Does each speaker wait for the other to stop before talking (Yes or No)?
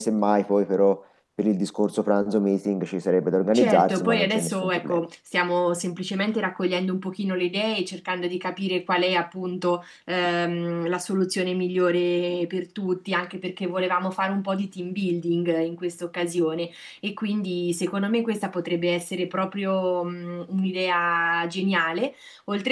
No